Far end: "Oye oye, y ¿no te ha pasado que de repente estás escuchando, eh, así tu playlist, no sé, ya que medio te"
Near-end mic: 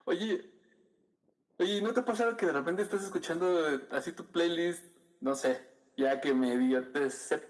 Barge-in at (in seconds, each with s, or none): none